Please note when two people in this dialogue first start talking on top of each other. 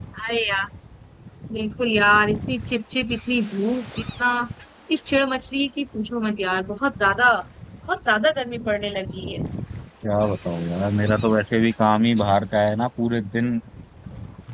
none

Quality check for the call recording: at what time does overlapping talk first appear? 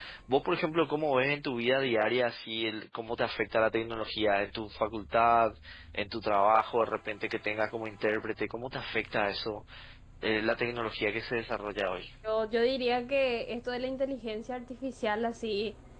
none

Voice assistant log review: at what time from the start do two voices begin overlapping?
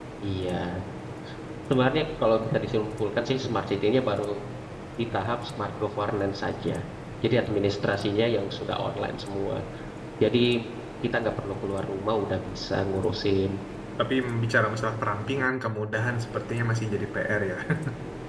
none

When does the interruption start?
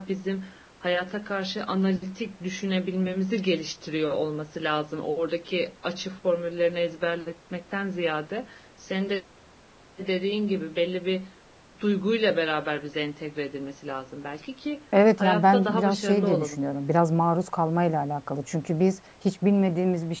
15.2 s

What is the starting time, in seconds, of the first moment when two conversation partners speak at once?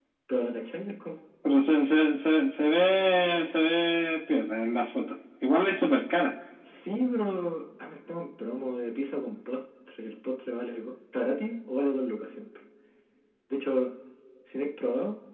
none

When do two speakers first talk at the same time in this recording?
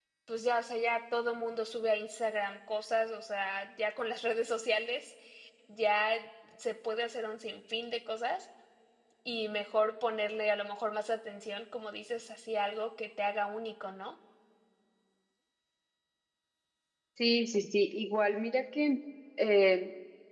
none

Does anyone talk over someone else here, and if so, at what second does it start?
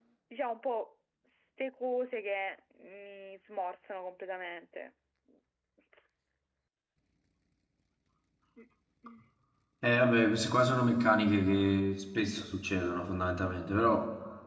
none

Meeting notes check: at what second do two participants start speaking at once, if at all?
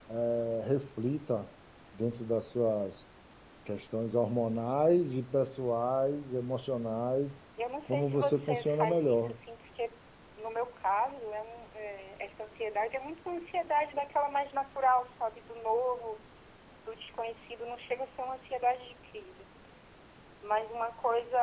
7.8 s

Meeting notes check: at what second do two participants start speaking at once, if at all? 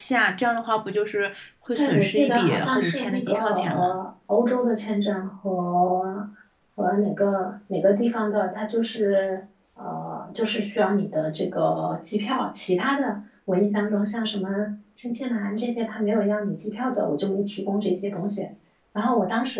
1.8 s

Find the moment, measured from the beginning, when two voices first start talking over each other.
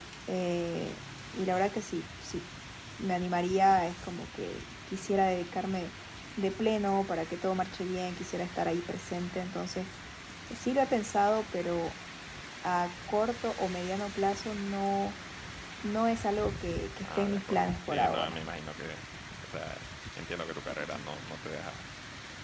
17.0 s

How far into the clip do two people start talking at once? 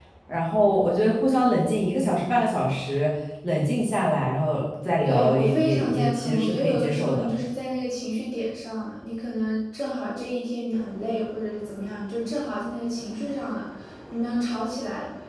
5.0 s

